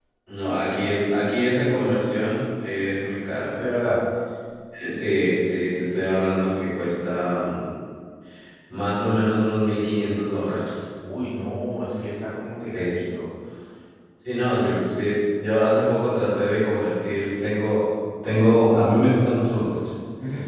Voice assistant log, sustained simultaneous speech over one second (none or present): none